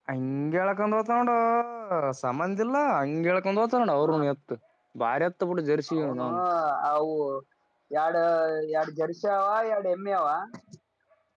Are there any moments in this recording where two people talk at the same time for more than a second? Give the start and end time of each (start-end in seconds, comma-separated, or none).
none